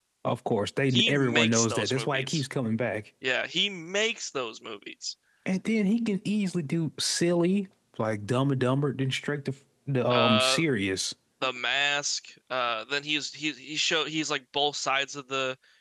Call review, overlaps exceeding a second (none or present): present